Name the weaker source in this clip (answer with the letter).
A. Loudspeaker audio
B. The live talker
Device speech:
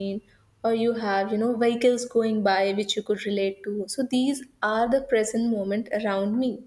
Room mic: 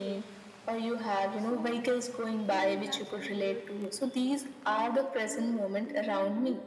B